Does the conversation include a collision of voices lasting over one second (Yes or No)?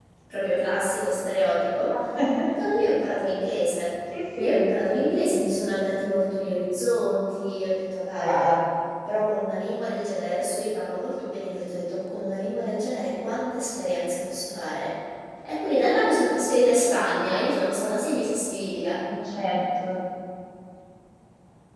No